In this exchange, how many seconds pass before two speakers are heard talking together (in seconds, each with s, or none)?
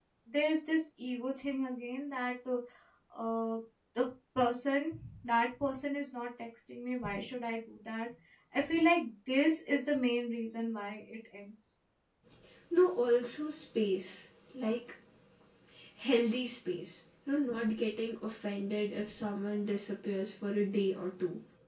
none